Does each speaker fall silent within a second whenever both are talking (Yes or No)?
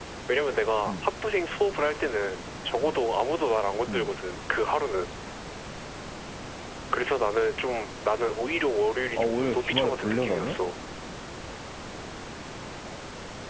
No